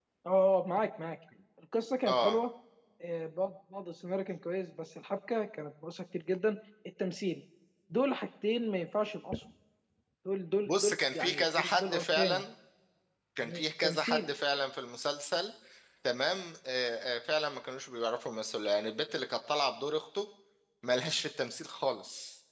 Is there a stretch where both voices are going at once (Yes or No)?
Yes